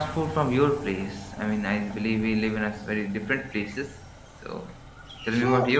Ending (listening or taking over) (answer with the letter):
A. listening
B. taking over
B